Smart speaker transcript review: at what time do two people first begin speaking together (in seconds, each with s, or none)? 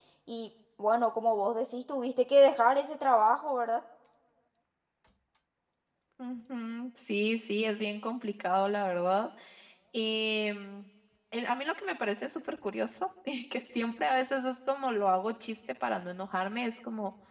none